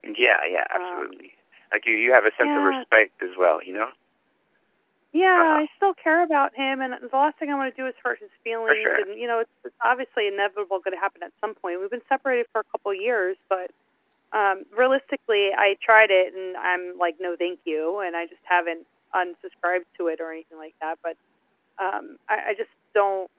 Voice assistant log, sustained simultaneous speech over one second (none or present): none